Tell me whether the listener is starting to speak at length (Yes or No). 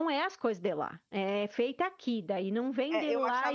Yes